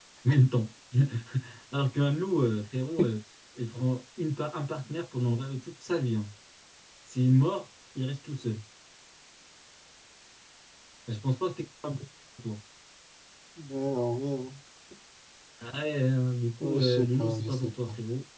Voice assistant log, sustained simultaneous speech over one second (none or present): present